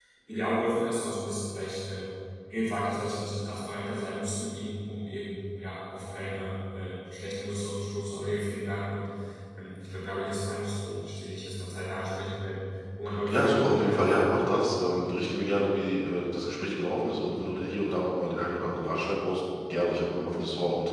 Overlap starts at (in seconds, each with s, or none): 13.1 s